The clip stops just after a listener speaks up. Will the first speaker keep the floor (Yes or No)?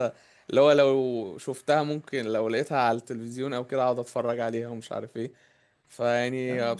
Yes